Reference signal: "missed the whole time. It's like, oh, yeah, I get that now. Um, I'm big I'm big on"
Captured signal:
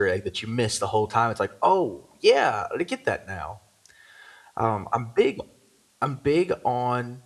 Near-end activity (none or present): none